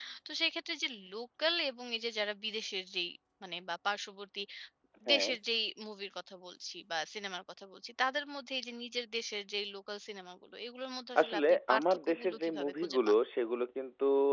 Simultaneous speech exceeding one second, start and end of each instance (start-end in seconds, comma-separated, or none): 11.2-13.1